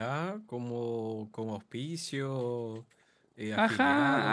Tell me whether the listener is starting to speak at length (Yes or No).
Yes